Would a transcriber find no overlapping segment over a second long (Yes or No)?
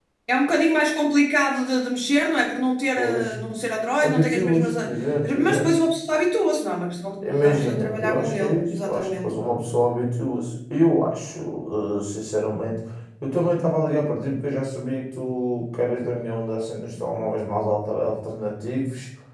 No